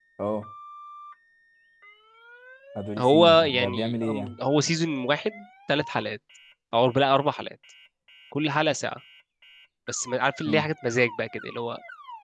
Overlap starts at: 3.0 s

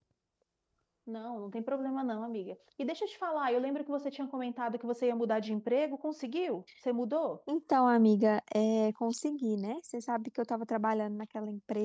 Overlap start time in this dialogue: none

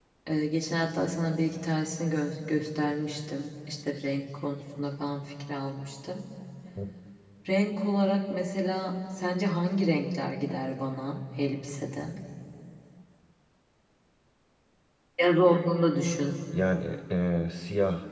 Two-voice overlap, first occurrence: none

